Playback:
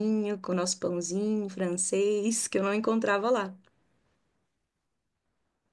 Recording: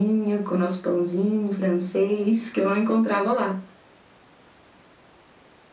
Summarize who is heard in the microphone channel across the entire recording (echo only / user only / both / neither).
echo only